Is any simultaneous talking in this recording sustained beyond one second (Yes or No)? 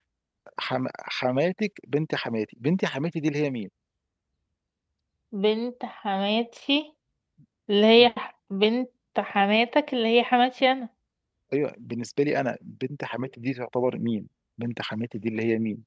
No